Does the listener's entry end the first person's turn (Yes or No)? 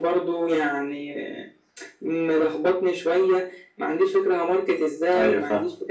No